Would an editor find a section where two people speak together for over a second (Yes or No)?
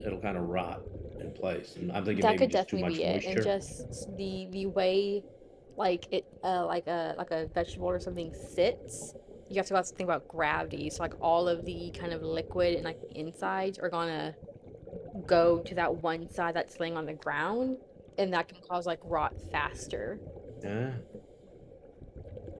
Yes